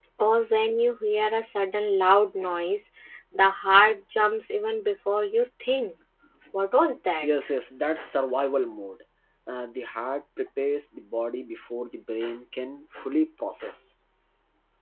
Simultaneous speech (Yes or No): No